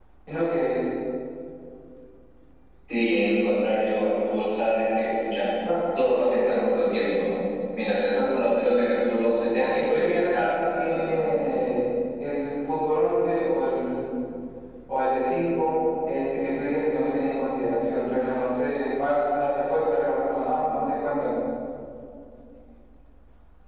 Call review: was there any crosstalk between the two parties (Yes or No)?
Yes